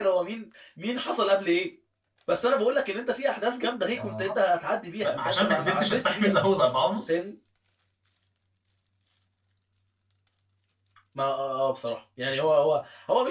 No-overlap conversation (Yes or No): No